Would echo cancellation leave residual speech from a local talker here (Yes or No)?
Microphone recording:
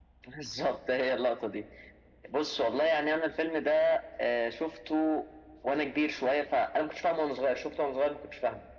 No